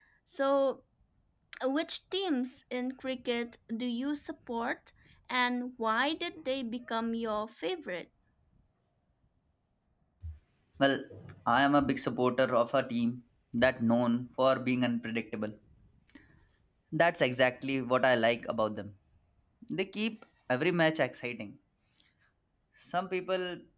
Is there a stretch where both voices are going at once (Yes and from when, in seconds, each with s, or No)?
No